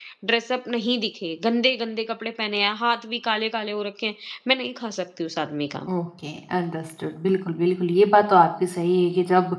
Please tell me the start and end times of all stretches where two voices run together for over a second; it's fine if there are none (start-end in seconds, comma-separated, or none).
none